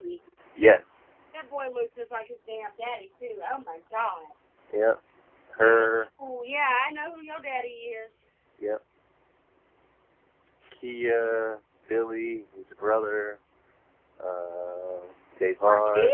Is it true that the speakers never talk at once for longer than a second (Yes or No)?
Yes